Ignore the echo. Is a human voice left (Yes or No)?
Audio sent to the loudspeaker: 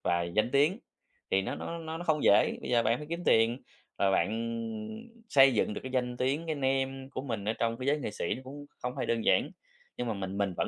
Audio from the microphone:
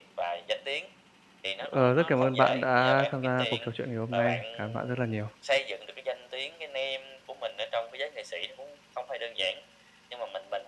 Yes